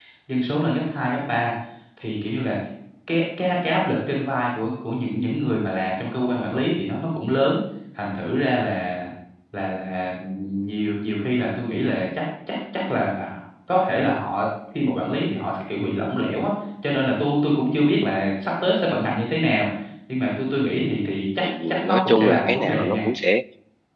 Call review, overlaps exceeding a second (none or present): present